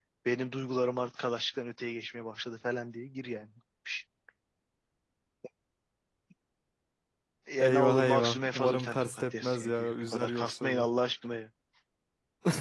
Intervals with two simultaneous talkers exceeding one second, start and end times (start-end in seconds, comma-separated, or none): 7.7-10.9